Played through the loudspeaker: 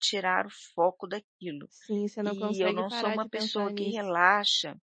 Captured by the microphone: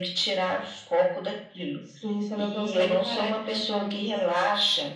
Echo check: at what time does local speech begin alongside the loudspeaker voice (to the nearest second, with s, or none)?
none